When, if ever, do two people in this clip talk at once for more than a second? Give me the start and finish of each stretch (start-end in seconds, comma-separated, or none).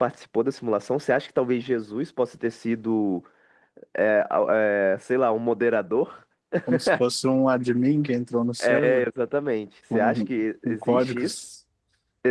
9.9-11.3